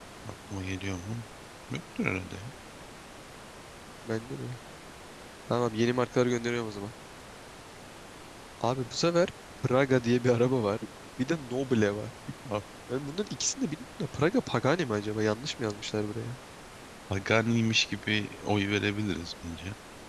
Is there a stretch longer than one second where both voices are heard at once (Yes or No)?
No